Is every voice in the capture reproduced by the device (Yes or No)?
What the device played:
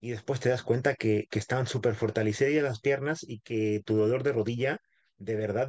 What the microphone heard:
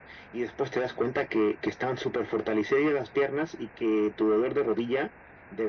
Yes